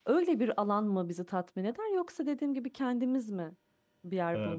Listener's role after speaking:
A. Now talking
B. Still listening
A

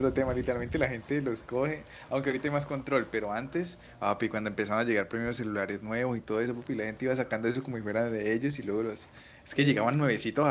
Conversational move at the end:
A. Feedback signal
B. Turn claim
A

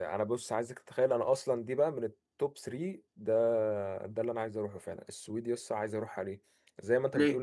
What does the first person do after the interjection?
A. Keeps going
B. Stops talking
A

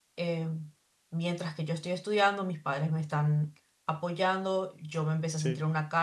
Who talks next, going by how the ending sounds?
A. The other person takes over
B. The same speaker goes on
B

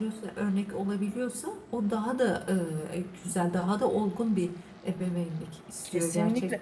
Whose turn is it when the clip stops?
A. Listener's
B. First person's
A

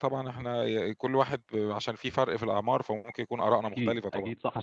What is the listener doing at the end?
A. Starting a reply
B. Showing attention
A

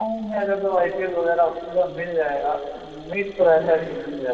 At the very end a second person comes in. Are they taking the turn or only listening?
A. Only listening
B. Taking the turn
A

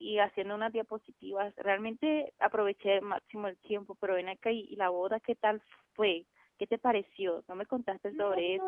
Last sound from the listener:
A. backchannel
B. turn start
B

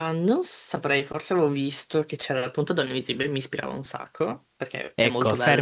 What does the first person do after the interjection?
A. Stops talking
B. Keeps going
A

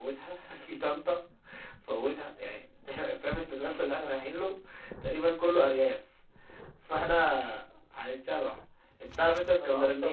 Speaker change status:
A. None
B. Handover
A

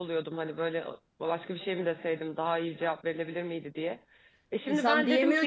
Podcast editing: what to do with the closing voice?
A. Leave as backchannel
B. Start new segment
B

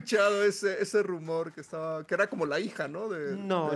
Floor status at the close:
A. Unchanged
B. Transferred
B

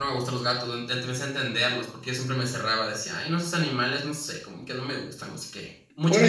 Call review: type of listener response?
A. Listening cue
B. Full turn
B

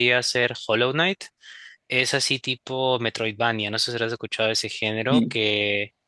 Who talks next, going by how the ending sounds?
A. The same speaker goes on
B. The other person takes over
A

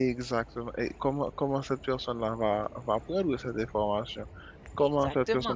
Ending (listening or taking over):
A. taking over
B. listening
B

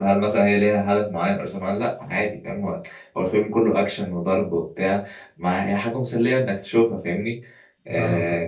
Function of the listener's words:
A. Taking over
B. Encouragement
B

